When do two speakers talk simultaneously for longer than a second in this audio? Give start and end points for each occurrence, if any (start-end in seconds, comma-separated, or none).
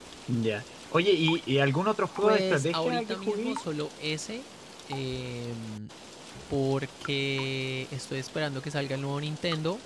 2.2-3.6